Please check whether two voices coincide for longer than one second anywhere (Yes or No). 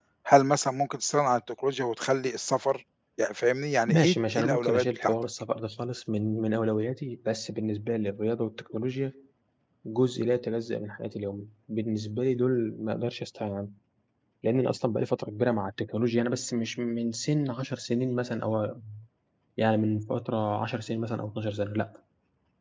Yes